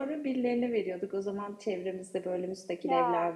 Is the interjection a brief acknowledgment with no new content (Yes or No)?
Yes